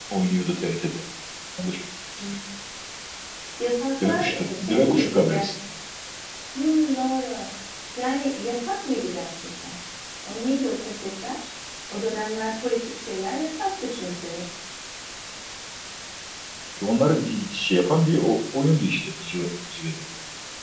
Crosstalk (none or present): present